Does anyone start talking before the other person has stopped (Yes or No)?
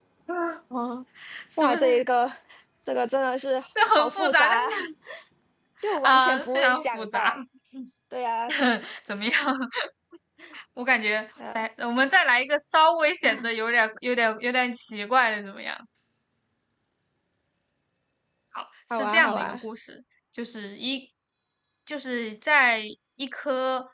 Yes